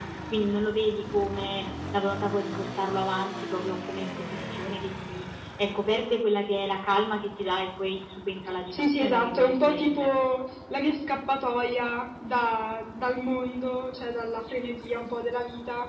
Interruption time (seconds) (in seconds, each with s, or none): 8.7 s